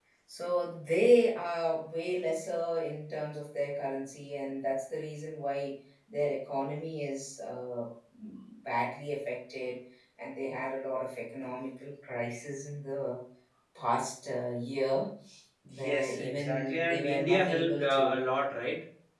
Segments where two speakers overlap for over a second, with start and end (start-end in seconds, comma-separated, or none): 15.7-18.2